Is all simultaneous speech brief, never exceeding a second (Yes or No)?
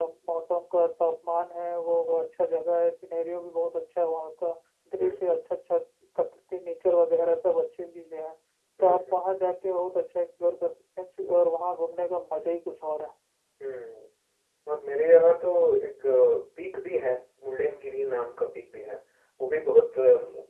Yes